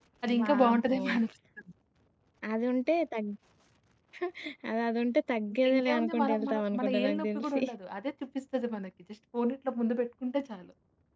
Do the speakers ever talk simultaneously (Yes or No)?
Yes